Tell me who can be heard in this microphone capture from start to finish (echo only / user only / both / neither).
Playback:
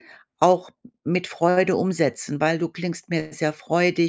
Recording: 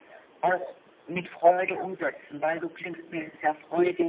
echo only